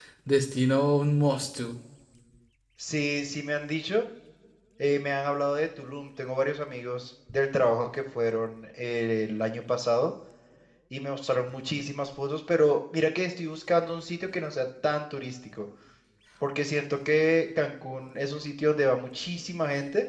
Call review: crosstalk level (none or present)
none